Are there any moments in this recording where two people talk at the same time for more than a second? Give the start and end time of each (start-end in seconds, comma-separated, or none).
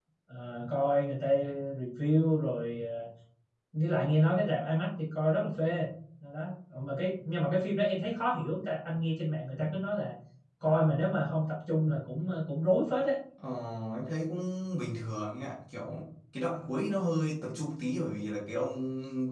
none